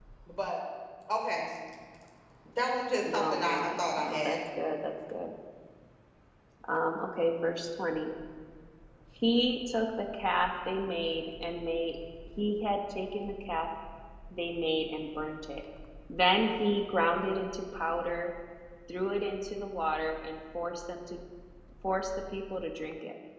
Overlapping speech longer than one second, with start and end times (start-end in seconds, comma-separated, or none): 3.0-4.4